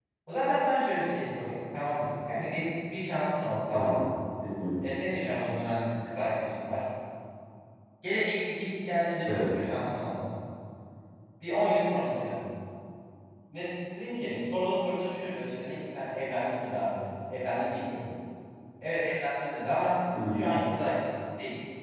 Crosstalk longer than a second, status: none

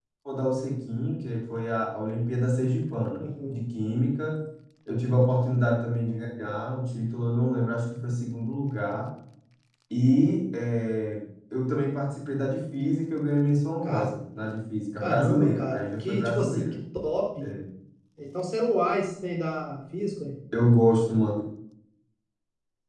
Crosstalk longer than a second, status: present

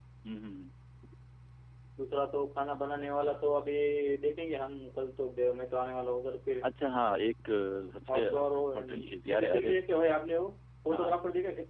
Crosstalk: present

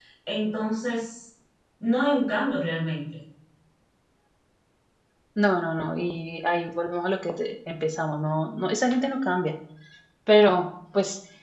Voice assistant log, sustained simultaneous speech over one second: none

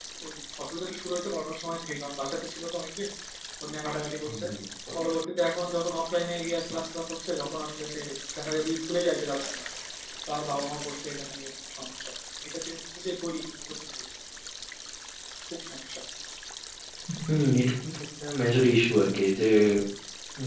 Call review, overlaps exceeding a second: none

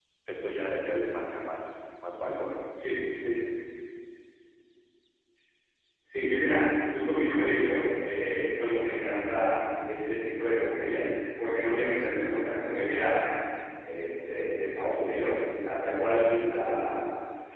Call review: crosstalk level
none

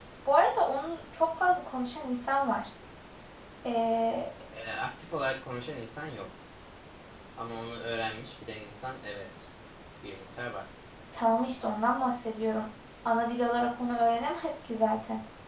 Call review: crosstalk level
none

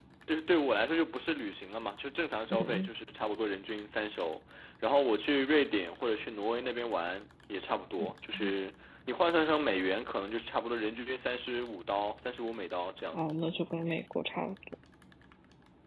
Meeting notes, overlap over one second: none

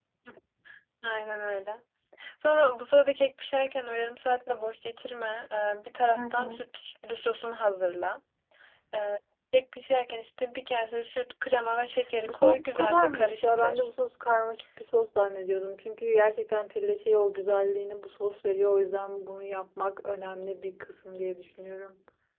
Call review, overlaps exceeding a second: present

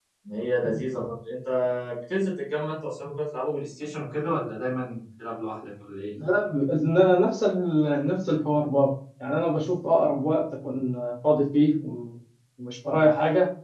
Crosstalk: none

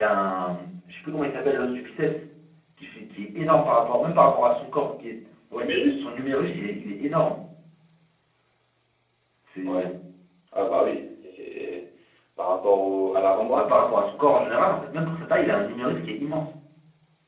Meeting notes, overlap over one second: none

